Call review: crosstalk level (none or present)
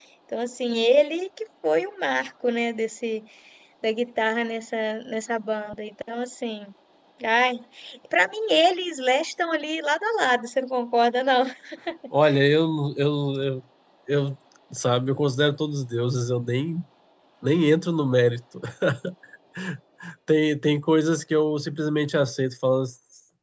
none